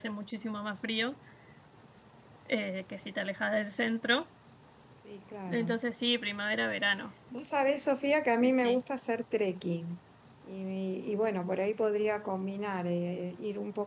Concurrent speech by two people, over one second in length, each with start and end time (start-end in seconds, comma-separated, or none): none